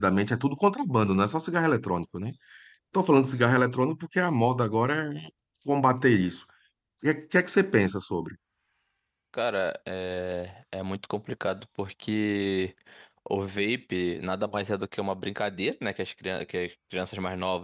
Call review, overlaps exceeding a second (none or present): none